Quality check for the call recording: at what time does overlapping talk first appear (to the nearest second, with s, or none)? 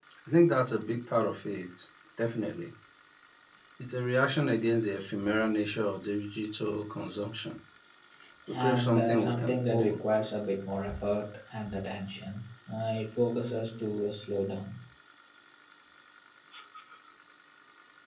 9 s